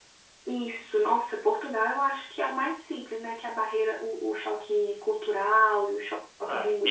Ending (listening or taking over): taking over